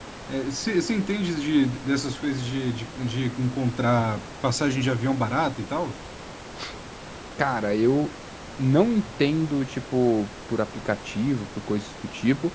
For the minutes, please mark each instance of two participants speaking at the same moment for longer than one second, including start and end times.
none

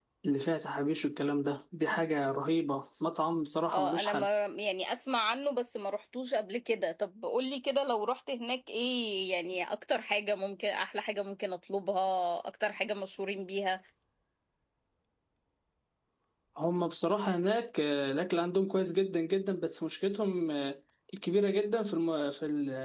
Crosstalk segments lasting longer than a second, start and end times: none

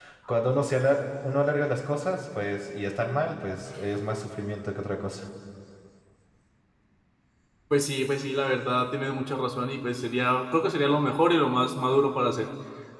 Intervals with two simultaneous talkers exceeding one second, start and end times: none

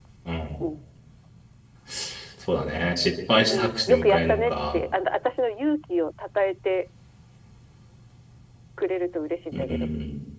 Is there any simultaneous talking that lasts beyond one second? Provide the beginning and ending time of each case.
3.5-4.8

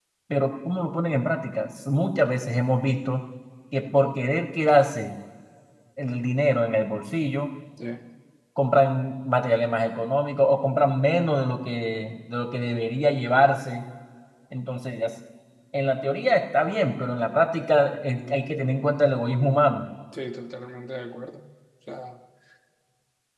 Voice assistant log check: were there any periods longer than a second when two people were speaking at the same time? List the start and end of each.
none

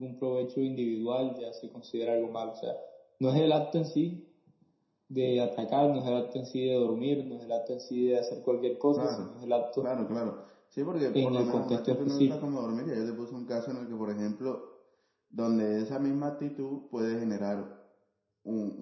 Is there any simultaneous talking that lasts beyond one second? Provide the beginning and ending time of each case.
11.1-12.4

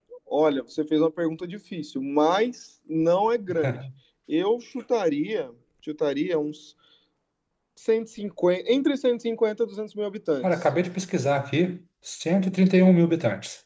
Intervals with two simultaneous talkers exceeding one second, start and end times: none

